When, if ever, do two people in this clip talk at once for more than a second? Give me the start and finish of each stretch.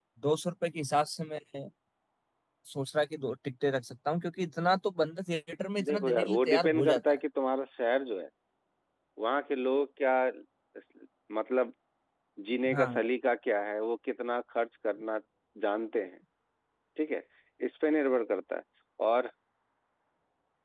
5.8-7.2

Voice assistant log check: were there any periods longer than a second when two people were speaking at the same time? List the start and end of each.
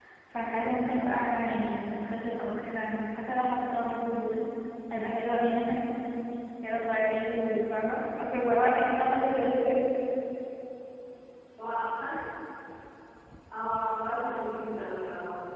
none

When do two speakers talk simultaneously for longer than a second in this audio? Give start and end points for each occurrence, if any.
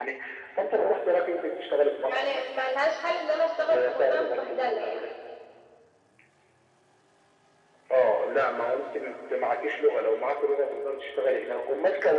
3.6-5.0

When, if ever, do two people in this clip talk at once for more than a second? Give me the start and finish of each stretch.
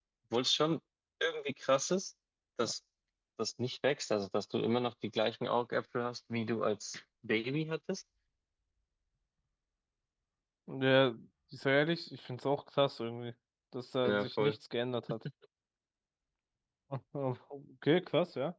none

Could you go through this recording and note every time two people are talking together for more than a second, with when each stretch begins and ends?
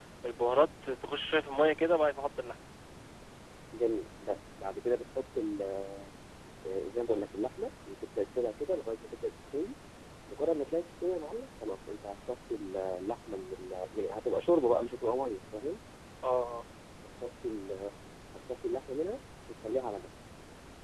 none

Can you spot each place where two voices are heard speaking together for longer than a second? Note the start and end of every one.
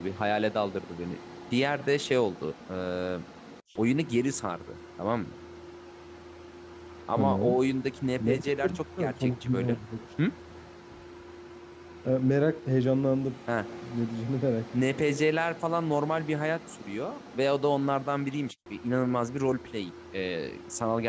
8.2-9.8

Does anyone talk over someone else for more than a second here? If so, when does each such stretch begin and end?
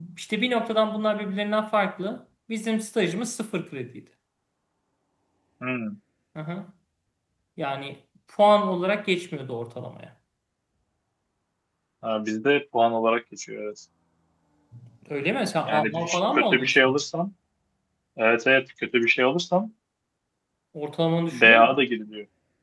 15.7-17.0

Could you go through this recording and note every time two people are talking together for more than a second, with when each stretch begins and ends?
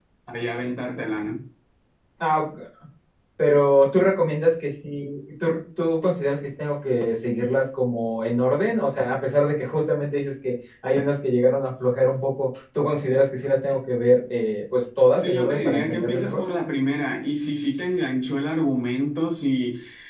15.2-16.4

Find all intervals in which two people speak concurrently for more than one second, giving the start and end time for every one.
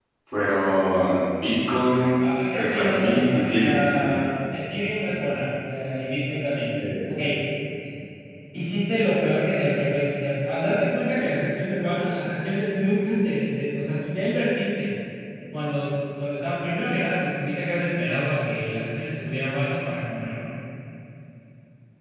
2.6-4.2

